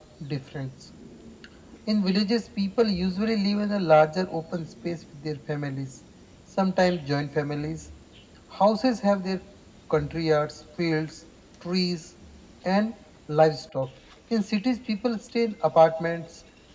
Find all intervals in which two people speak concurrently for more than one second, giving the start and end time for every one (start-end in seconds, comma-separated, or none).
none